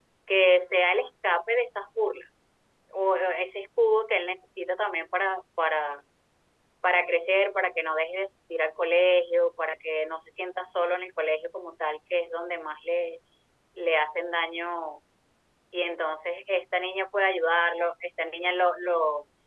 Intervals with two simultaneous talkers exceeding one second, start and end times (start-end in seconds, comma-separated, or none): none